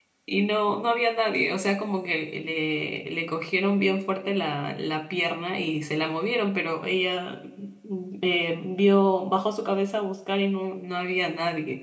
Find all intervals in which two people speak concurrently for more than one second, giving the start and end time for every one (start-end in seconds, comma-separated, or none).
none